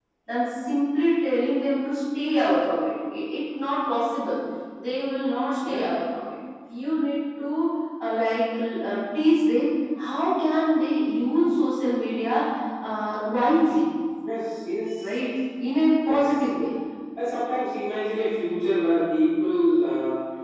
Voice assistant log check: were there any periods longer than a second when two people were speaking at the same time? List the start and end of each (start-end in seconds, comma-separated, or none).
none